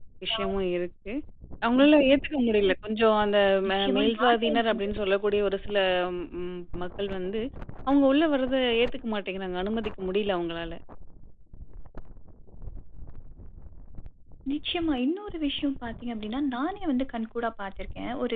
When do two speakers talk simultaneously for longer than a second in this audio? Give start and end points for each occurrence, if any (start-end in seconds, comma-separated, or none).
3.6-4.9